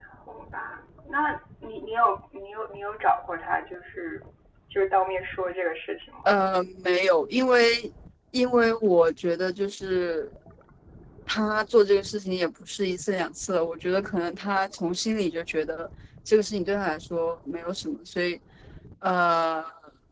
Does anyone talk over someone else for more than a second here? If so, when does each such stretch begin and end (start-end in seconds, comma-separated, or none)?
none